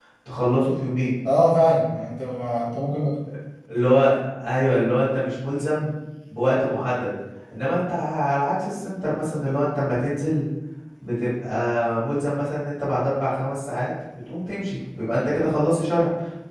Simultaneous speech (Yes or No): No